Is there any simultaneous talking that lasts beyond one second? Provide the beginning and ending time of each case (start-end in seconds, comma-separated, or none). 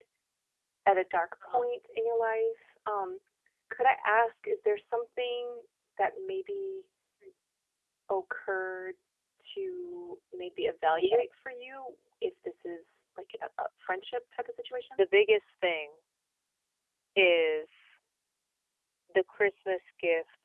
none